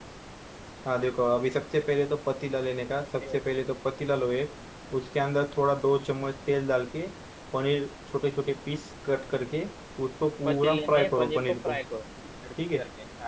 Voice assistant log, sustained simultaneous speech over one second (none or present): present